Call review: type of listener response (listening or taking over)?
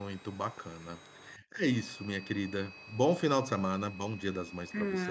taking over